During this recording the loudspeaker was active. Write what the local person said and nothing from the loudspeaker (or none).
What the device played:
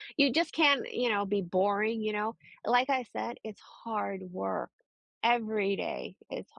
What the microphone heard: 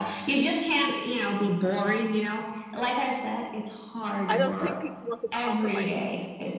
I don't think people want to compromise.